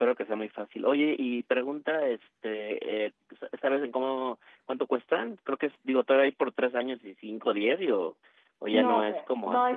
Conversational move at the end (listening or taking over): taking over